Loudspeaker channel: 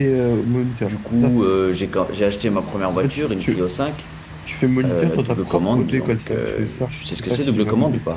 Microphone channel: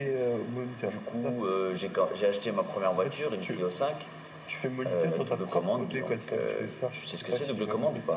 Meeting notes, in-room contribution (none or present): none